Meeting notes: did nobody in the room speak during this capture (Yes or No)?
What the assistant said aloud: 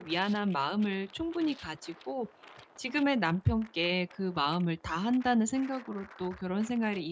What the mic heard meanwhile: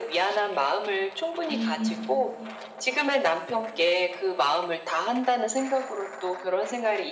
No